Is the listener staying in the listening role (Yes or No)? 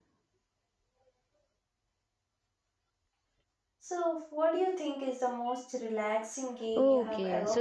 No